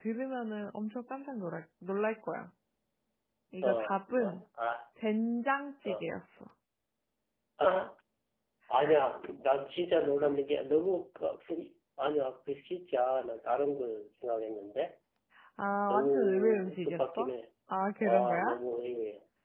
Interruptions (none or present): present